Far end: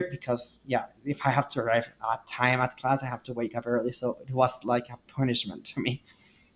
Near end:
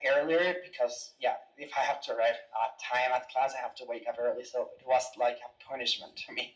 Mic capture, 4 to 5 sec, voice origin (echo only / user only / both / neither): echo only